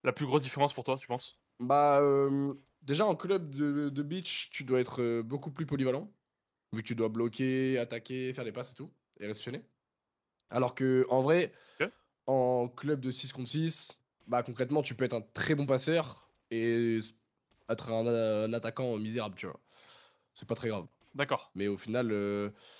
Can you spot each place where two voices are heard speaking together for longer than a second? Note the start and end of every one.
none

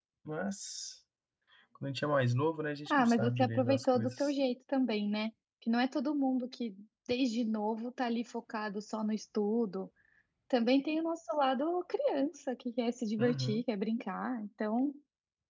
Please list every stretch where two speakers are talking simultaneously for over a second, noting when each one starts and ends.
2.9-4.3

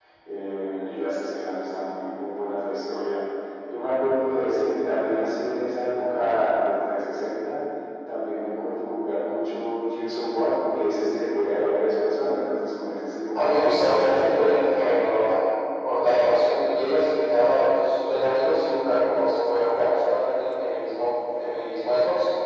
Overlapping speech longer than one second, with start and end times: 13.3-14.6

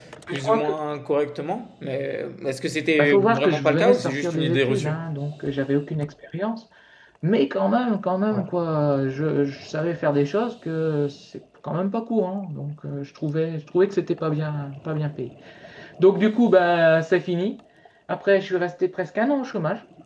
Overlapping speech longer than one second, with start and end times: 3.0-4.9

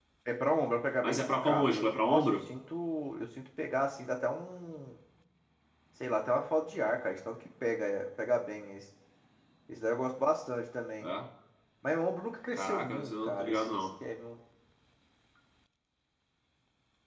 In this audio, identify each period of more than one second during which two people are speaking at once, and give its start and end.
1.0-2.3, 12.5-13.9

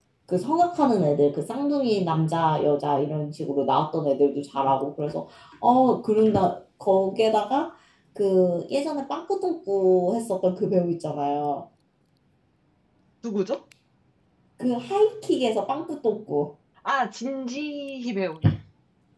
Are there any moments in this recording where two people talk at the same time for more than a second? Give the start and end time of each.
none

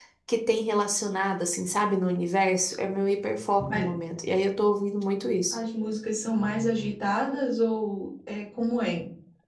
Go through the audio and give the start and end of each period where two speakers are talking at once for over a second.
none

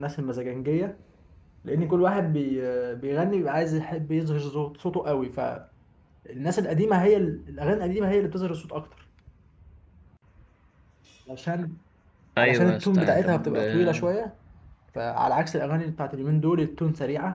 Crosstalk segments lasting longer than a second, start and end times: 12.4-14.1

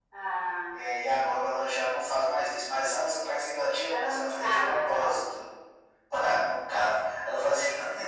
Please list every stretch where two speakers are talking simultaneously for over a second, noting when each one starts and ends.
3.9-5.2

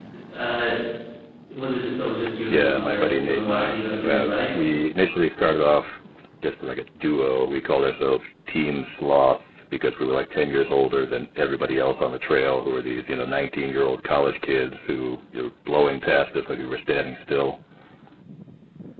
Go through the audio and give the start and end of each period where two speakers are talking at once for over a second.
2.5-4.3

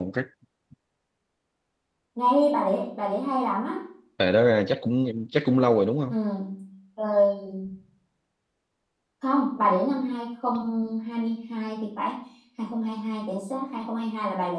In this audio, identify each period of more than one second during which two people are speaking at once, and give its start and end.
none

